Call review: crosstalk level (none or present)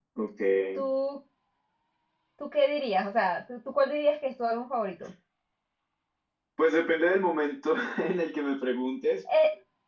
none